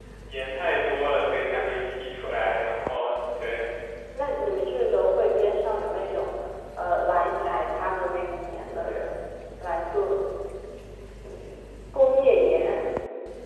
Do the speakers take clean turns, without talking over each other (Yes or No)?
Yes